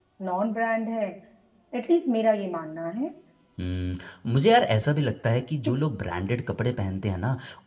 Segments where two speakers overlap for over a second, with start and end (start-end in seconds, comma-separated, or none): none